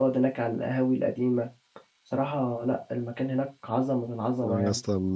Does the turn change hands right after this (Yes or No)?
Yes